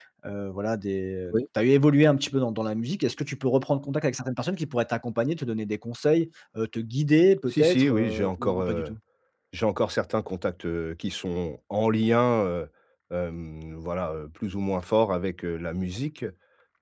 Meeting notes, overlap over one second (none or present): present